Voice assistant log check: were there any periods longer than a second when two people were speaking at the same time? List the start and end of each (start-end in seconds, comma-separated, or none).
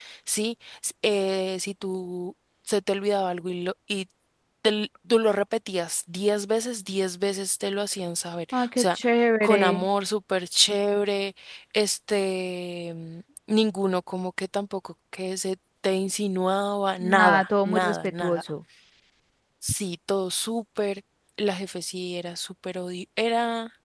17.0-18.4